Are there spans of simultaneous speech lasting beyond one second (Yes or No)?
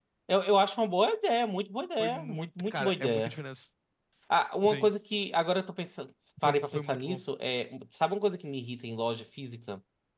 Yes